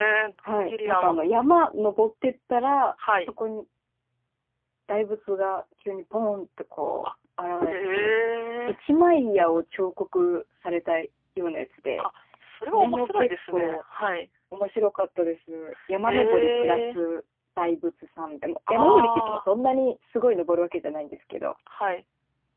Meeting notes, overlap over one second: present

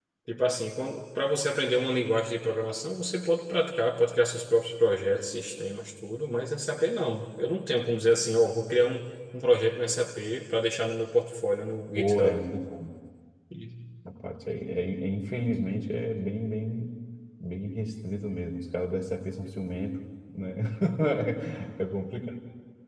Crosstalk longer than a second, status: none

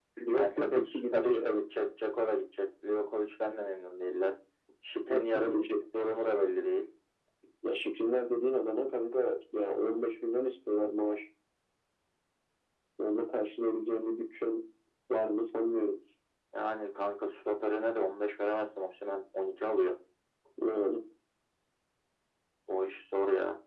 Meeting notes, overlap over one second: present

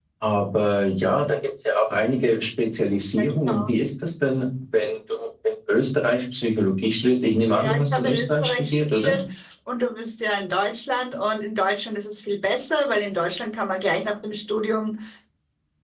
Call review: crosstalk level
present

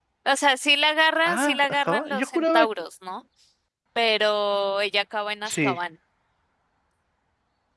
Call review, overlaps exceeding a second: present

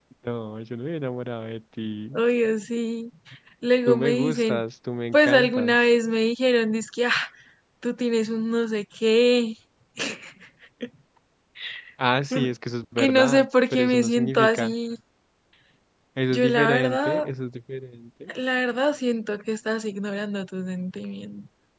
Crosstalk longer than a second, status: present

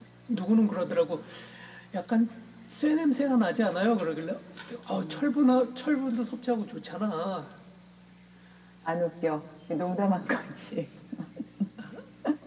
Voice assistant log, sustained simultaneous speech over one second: none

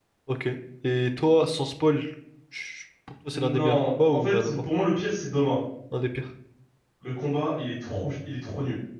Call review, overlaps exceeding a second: present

